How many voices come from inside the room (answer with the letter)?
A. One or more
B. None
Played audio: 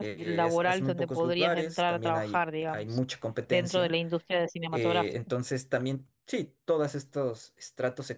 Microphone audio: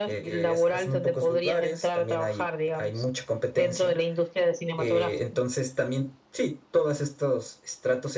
B